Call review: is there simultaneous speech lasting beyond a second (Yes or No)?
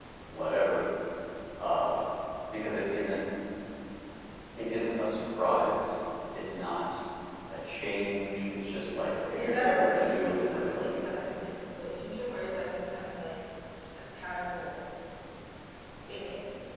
Yes